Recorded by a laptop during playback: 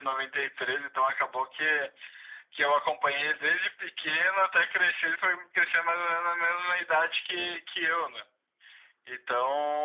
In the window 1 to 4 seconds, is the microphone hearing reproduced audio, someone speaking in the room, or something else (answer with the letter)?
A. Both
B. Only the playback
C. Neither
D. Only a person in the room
B